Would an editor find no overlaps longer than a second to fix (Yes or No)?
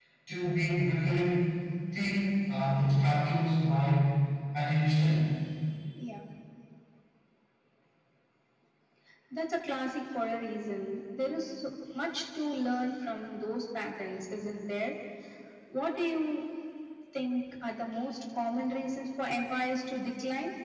Yes